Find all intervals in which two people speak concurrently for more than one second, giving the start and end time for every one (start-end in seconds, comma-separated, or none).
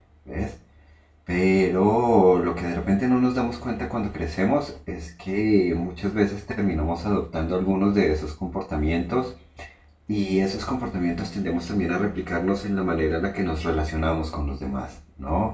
none